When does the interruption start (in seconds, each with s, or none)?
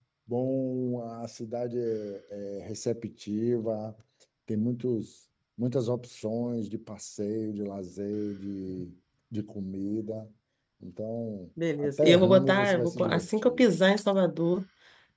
11.6 s